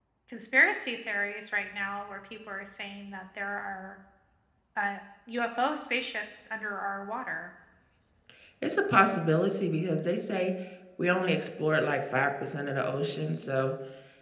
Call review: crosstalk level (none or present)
none